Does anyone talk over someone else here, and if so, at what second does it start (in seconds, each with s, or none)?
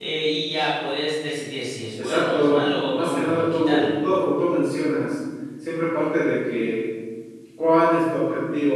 2.0 s